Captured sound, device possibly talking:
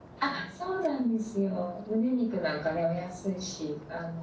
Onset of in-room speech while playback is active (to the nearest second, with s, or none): none